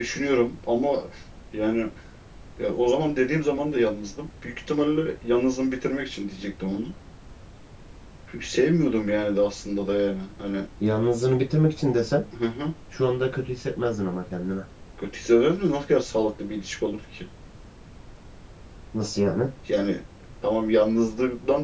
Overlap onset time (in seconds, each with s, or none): none